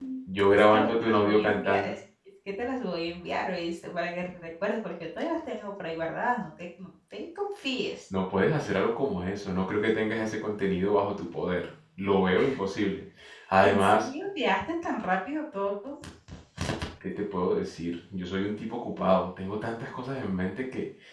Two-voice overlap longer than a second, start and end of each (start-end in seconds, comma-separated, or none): 0.5-1.9